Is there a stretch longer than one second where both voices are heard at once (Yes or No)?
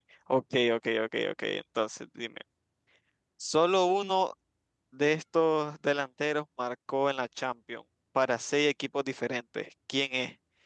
No